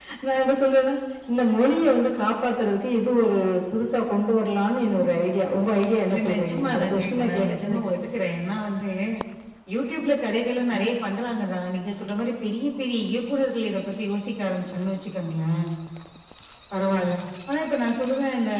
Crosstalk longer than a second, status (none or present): present